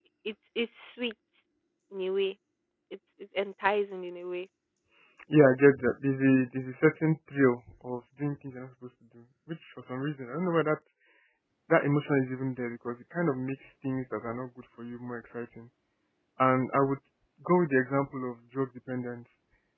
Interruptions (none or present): none